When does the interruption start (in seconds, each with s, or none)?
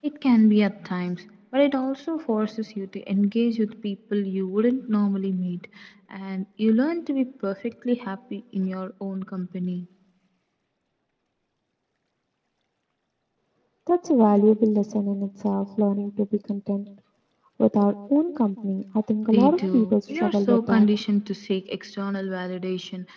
19.2 s